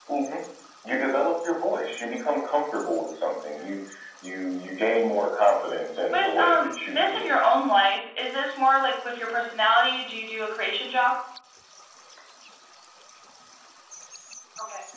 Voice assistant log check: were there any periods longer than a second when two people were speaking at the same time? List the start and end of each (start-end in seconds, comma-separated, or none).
6.1-7.5